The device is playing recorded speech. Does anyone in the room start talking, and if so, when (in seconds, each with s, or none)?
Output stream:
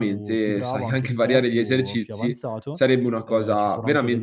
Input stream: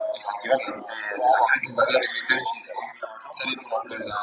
none